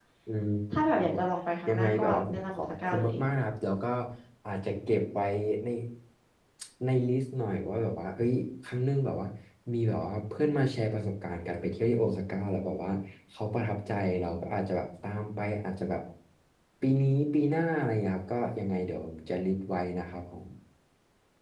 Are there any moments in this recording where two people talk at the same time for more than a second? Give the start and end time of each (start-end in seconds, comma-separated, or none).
1.7-3.1